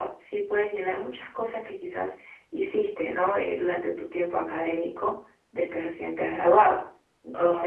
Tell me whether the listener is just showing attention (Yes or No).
Yes